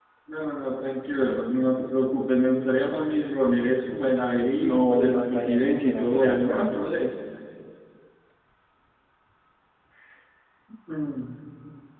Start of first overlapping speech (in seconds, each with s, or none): 4.6 s